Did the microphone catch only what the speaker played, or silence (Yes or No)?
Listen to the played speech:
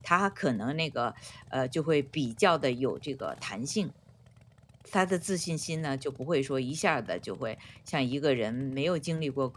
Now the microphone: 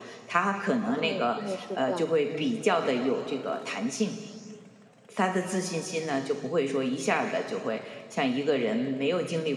No